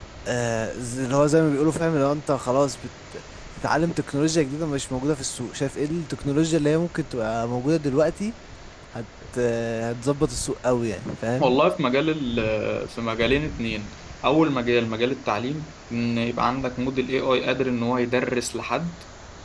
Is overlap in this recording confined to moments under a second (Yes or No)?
Yes